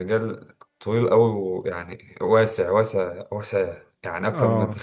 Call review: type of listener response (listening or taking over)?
taking over